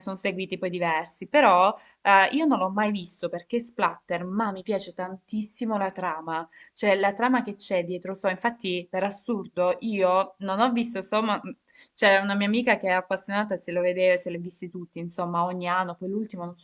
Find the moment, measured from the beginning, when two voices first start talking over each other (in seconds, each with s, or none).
none